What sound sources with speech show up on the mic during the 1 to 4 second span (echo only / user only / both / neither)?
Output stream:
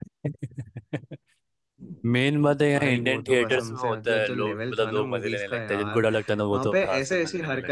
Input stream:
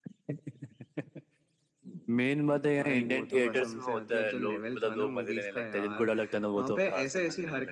echo only